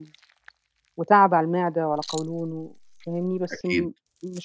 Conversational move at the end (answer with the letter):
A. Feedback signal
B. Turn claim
A